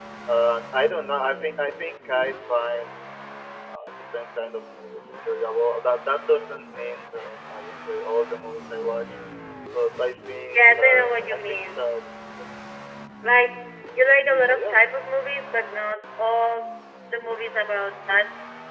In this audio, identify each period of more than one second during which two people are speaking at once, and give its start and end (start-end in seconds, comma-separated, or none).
10.5-11.8